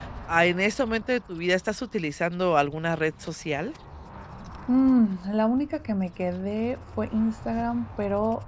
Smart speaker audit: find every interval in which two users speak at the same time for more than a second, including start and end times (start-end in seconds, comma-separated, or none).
none